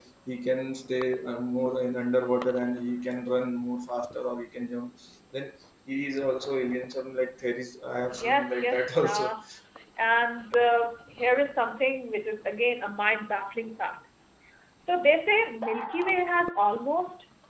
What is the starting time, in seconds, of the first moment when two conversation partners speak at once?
8.1 s

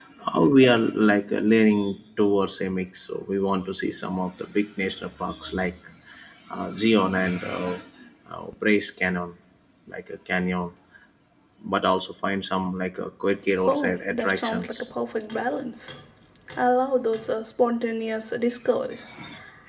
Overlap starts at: 13.6 s

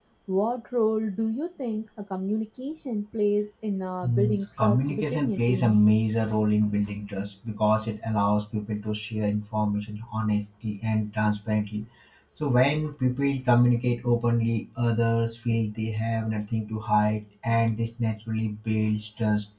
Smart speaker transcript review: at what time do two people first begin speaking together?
4.0 s

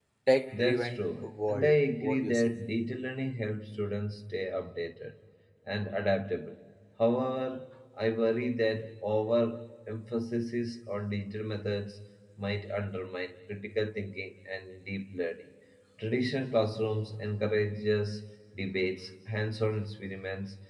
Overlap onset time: 0.5 s

